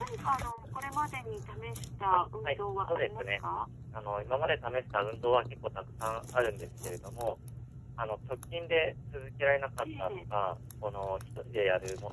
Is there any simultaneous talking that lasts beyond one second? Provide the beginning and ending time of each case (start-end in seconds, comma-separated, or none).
2.1-3.3